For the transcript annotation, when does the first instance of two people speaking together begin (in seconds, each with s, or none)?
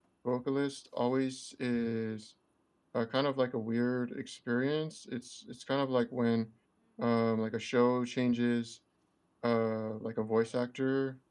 none